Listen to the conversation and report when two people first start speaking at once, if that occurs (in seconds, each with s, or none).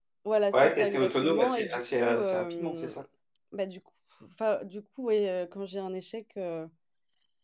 0.5 s